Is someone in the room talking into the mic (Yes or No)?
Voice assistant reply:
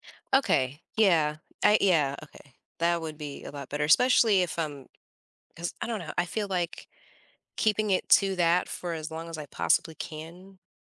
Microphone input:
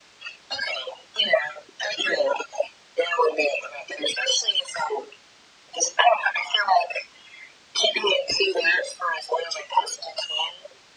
No